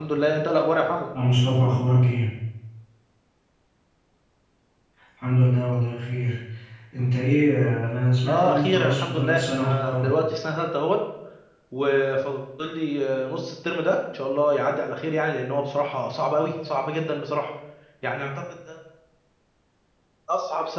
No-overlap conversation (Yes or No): No